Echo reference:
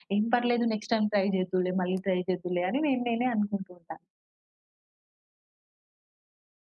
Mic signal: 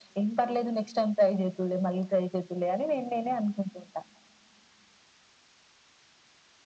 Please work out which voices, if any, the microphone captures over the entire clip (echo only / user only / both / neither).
echo only